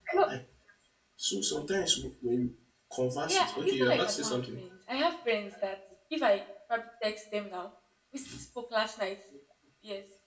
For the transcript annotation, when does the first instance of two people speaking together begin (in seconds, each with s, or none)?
3.3 s